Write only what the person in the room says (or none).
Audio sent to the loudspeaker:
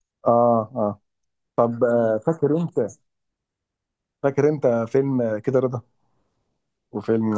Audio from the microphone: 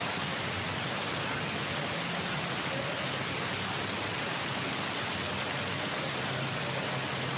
none